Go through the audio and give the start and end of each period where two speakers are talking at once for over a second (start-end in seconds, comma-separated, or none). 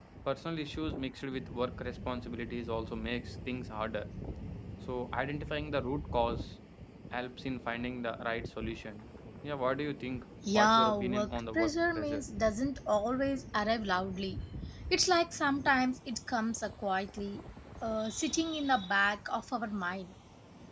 10.5-12.2